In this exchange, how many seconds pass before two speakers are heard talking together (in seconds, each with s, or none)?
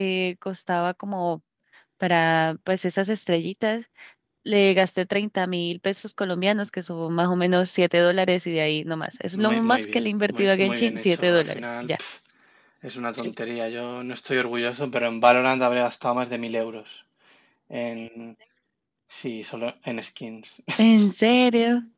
9.3 s